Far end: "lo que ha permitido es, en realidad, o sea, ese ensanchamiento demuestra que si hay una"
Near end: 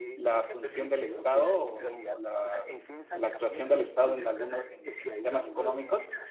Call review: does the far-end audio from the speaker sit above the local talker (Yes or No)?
No